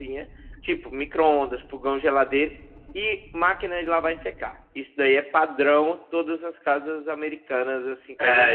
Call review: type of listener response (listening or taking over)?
taking over